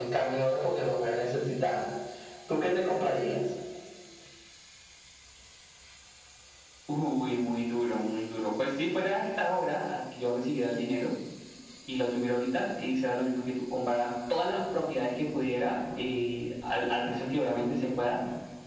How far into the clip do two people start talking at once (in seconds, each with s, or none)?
none